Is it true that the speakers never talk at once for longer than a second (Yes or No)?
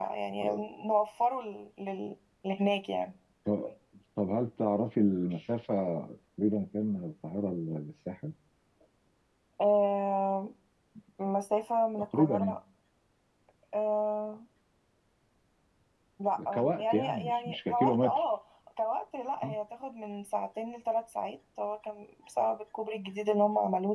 No